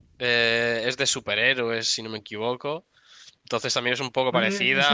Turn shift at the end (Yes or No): No